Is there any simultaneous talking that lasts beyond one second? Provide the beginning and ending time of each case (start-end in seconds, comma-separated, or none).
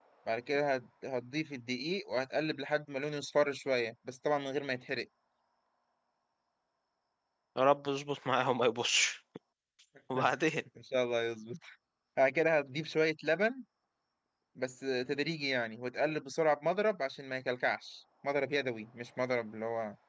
none